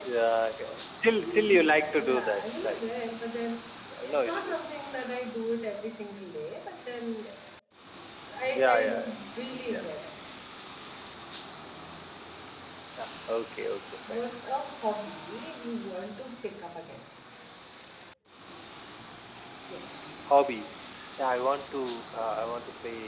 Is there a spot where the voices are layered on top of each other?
Yes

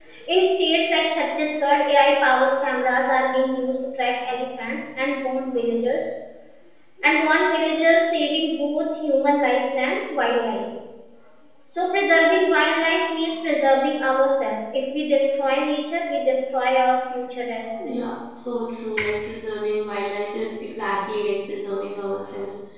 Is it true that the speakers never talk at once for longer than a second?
Yes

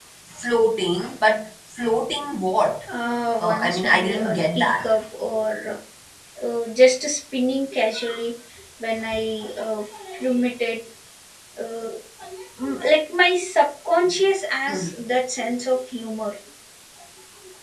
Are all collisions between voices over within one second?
No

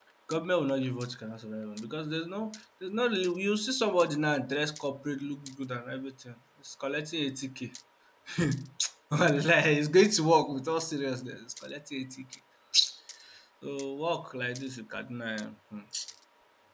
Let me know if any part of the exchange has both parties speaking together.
No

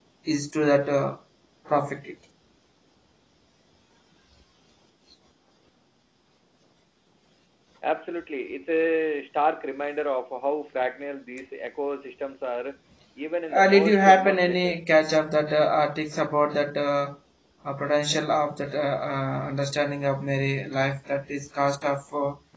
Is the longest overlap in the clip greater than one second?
Yes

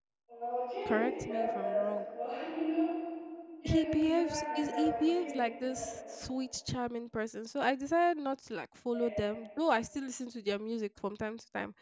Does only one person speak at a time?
No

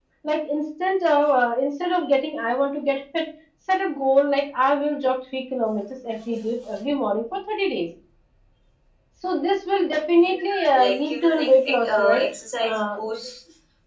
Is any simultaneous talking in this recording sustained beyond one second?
Yes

